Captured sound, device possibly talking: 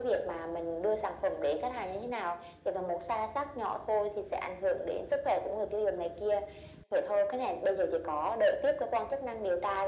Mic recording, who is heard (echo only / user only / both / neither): echo only